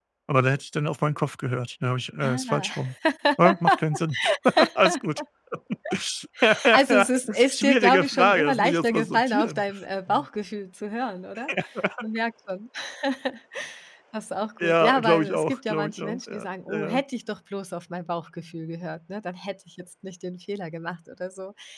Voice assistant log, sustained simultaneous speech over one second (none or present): present